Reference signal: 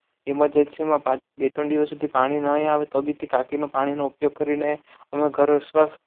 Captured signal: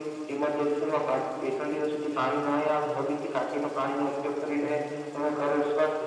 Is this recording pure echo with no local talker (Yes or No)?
No